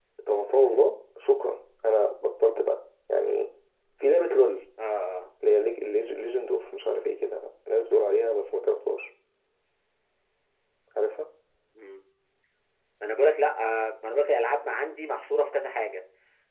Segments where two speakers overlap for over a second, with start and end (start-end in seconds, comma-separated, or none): none